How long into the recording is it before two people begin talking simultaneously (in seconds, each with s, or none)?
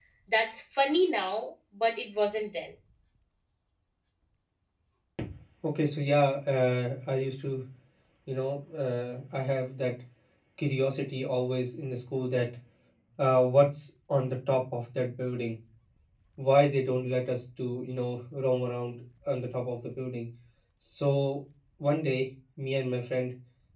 none